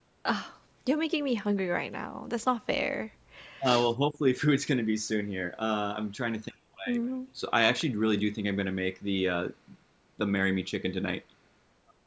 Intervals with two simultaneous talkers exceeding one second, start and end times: none

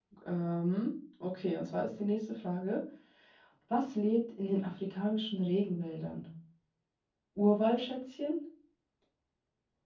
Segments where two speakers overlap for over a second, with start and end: none

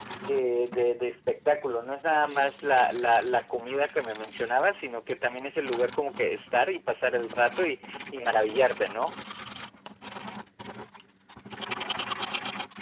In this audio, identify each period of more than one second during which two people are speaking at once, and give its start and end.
none

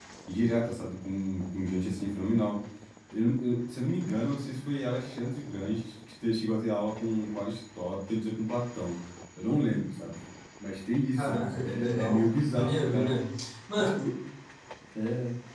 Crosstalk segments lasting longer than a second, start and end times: 11.2-13.1

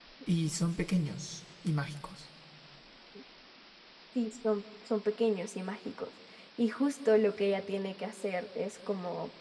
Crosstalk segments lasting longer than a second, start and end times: none

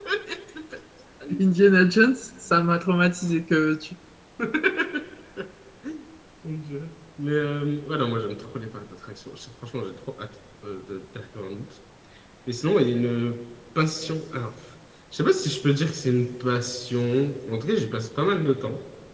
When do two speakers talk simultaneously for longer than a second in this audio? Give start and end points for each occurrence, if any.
none

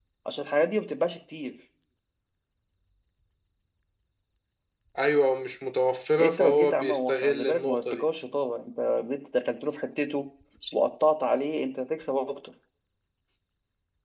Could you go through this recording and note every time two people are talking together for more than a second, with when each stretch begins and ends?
6.2-8.0

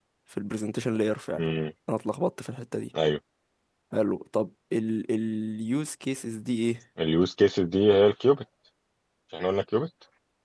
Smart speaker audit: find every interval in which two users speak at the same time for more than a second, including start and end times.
none

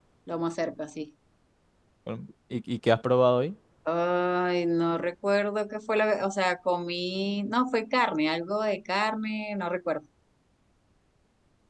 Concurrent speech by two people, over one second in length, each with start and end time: none

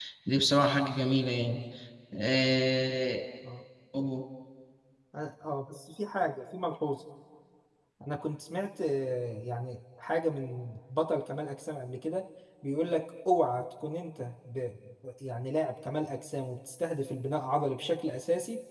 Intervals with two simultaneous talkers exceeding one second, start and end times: none

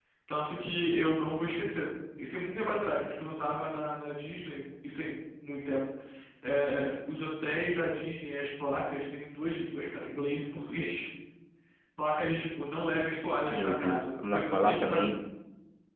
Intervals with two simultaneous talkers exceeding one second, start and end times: 13.5-15.1

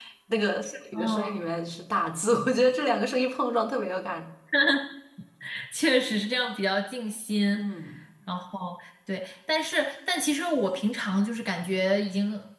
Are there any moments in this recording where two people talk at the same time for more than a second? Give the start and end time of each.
none

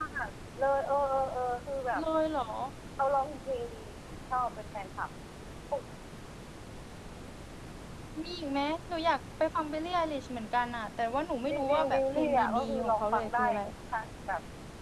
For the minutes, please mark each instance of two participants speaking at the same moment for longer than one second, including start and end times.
11.5-13.4

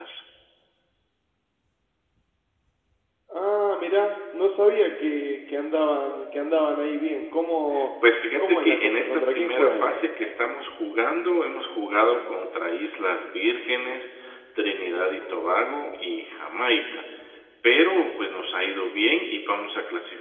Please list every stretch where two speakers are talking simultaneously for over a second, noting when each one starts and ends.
8.4-9.9

